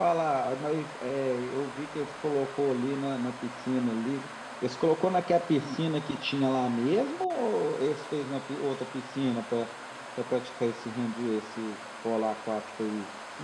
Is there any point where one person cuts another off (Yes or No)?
No